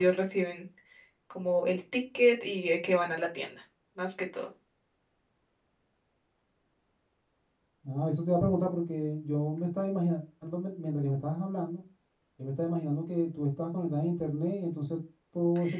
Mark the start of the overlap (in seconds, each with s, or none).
none